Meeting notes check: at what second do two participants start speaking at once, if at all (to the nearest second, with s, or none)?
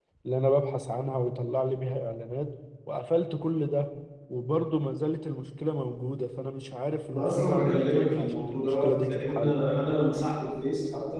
7 s